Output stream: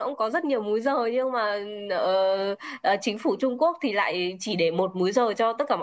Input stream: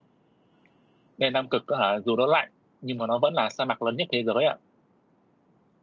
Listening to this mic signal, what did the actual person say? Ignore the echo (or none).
nên Nam Cực á hả, dù nó lạnh nhưng mà nó vẫn là sa mạc lớn nhất thế giới ạ.